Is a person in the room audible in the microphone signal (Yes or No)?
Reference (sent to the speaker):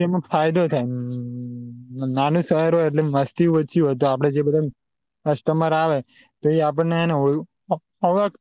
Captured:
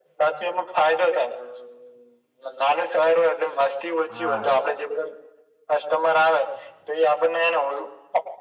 Yes